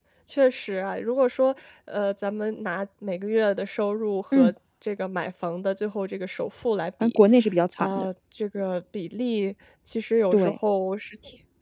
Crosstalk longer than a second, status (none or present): none